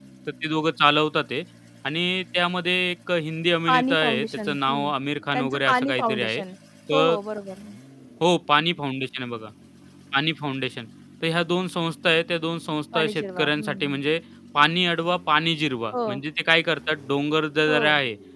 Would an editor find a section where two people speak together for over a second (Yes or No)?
Yes